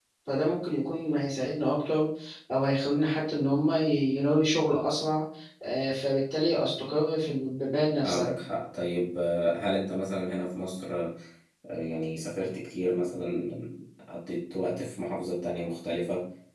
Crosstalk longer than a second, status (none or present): none